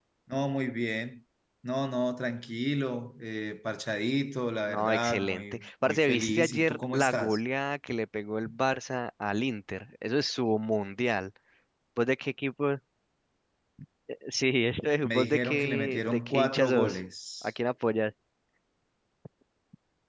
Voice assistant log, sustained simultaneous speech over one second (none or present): present